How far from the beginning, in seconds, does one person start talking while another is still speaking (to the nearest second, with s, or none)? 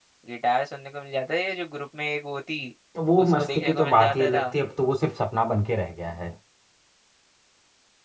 3 s